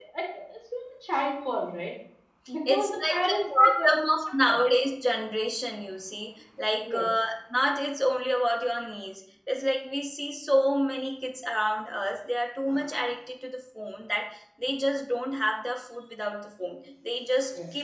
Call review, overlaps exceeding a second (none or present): present